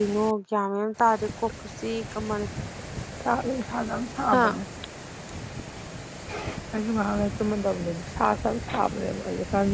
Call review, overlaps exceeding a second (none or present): none